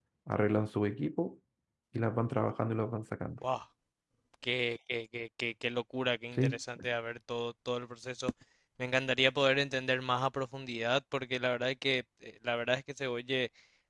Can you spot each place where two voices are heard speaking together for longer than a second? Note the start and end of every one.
none

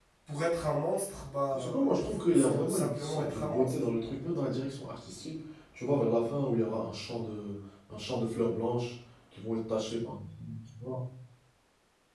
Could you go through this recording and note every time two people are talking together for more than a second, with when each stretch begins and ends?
1.5-3.9

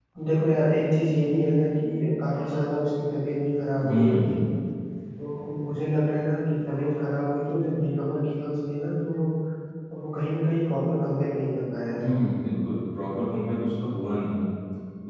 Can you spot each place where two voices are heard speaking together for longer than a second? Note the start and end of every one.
none

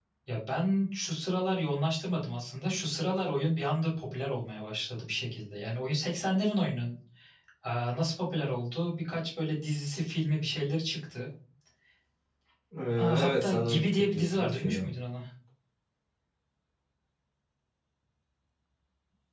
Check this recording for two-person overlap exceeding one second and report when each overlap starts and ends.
13.2-14.8

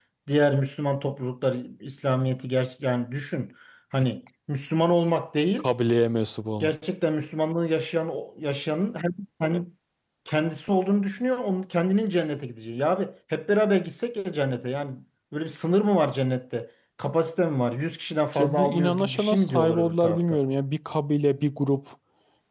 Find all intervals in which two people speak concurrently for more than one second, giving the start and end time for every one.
18.4-20.4

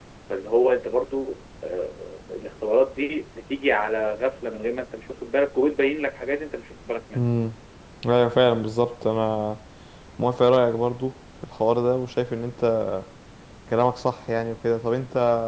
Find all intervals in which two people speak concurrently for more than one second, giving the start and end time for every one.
none

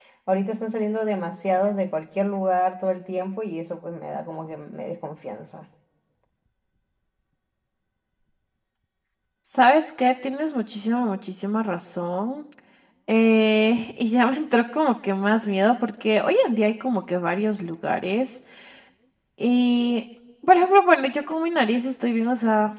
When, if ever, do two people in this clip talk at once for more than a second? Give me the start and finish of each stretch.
none

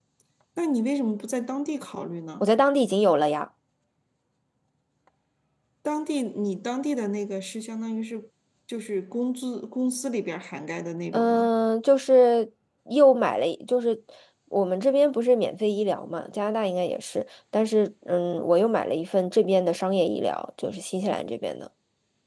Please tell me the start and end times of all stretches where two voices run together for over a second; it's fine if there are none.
none

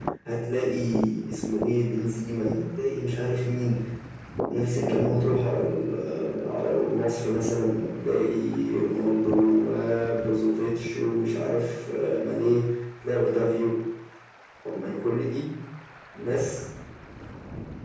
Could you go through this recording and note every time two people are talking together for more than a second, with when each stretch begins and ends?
none

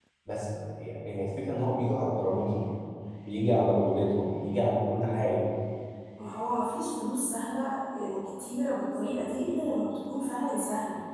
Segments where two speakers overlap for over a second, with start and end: none

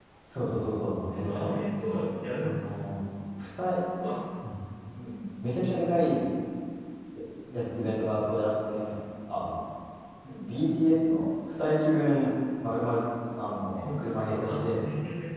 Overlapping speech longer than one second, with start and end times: 13.4-14.8

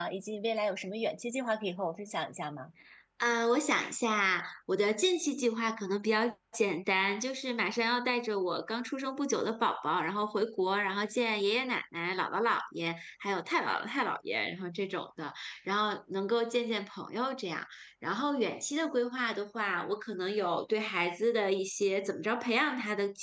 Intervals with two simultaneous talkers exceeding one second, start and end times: none

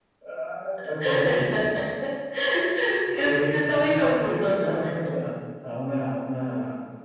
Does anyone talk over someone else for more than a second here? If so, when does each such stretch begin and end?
3.2-4.7

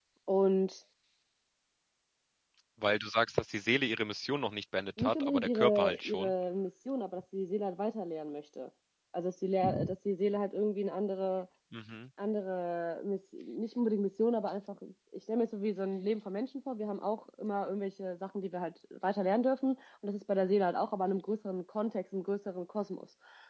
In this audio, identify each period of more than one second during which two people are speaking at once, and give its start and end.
5.0-6.3

